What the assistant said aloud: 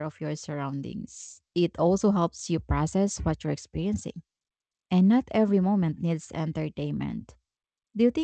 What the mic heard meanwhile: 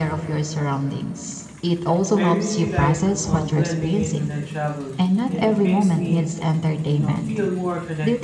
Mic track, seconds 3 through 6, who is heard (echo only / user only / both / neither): both